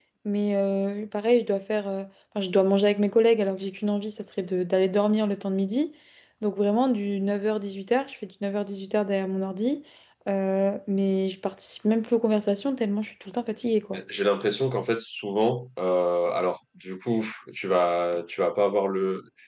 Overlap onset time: none

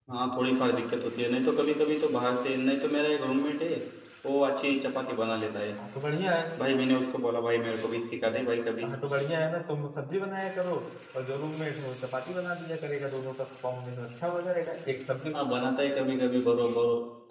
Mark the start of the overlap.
none

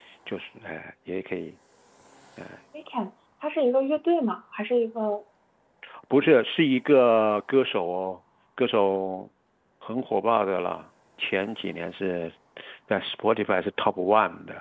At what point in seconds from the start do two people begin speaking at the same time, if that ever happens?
none

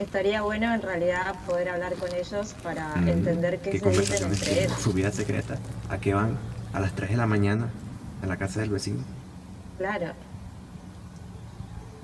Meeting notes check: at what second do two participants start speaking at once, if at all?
3 s

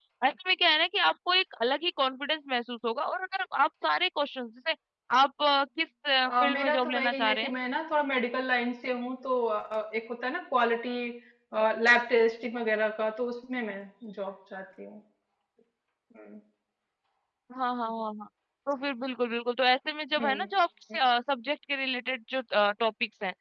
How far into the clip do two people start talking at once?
6 s

